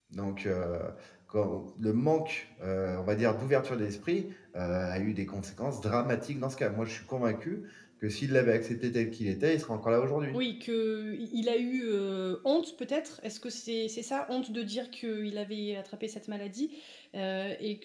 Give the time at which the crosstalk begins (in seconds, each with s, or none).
none